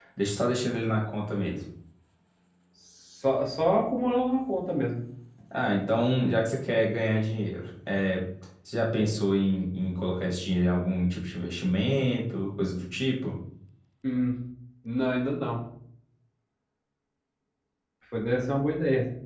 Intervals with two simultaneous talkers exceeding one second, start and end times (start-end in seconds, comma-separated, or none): none